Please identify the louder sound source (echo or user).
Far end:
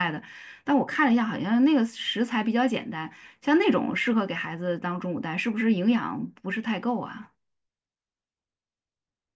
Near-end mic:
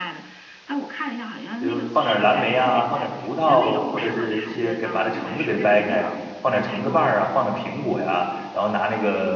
user